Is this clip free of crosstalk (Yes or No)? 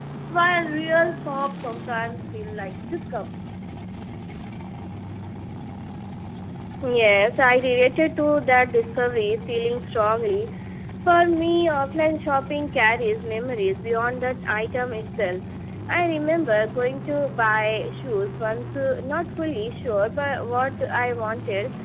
Yes